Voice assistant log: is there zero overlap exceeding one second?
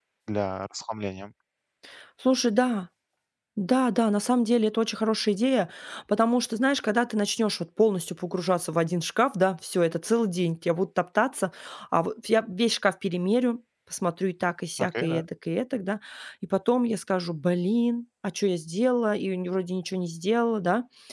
Yes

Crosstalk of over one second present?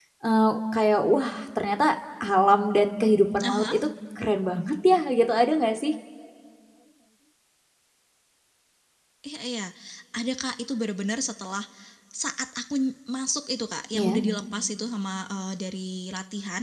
No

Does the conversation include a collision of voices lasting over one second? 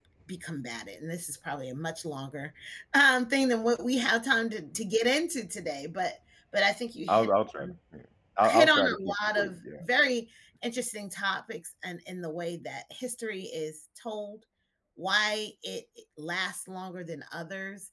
Yes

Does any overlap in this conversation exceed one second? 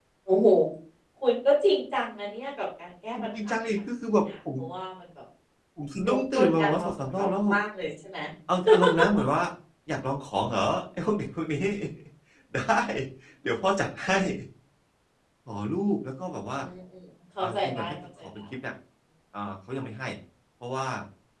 Yes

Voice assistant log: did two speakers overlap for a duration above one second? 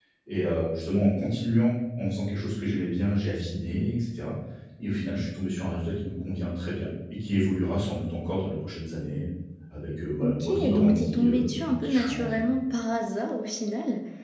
Yes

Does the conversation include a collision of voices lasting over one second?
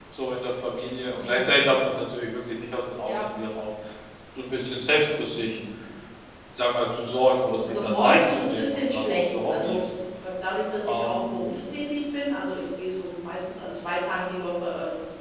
Yes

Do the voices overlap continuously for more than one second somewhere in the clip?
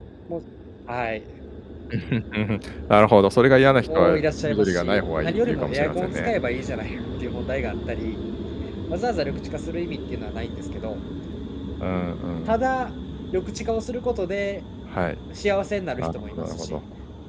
Yes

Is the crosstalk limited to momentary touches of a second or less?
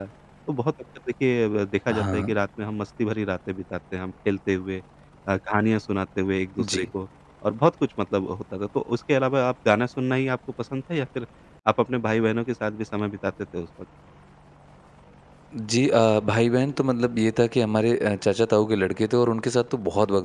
Yes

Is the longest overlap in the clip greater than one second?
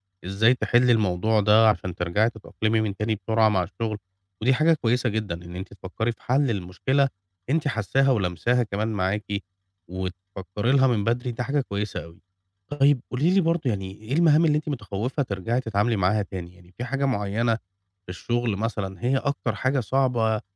No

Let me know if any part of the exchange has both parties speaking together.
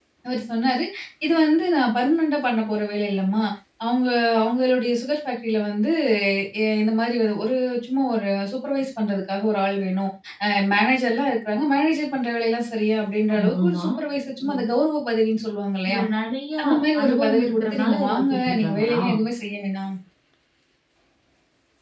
Yes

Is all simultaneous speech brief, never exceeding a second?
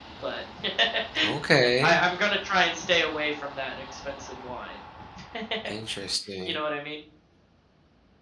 Yes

